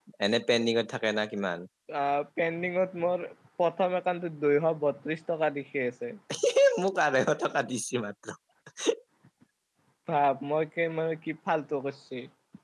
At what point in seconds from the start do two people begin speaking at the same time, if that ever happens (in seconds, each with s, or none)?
none